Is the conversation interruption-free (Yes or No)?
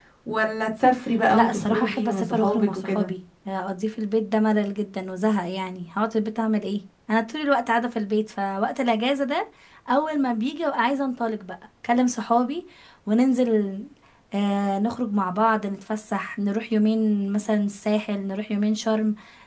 No